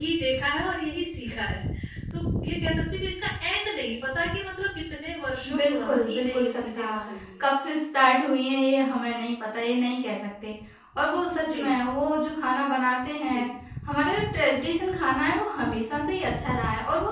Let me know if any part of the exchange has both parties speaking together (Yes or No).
Yes